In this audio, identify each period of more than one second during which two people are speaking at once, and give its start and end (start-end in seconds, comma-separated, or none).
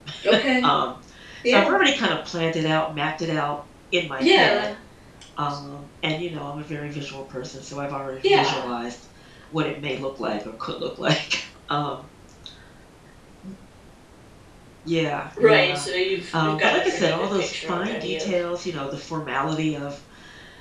16.4-18.3